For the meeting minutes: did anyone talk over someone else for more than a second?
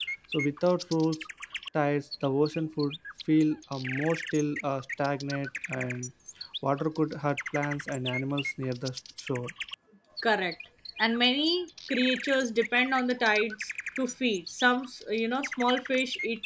No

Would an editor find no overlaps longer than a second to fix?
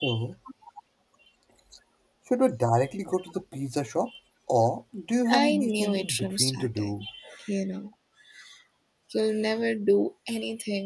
No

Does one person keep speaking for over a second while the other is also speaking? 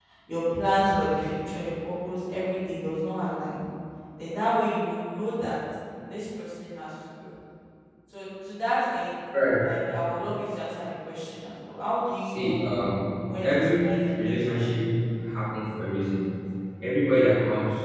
Yes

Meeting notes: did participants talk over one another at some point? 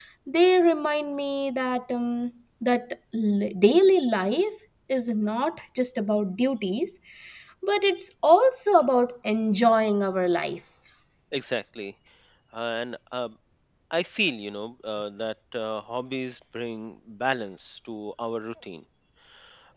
No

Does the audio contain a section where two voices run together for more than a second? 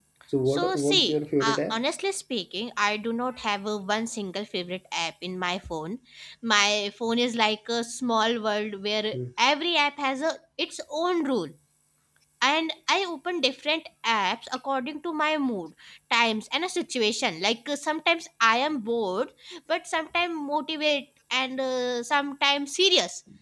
Yes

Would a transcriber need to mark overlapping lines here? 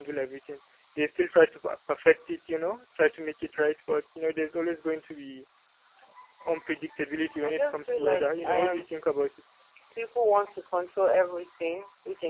Yes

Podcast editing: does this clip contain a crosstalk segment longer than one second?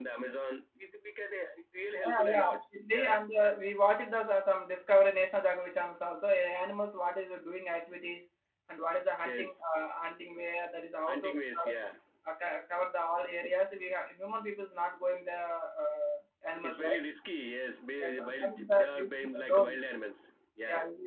Yes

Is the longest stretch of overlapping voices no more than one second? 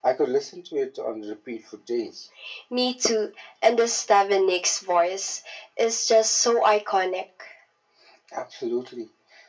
Yes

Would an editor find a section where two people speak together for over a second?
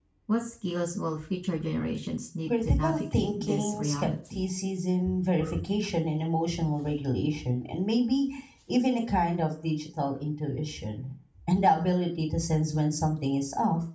Yes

